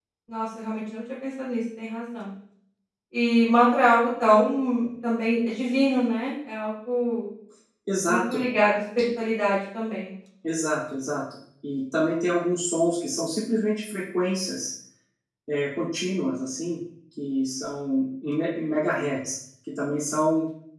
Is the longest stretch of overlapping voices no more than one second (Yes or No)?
Yes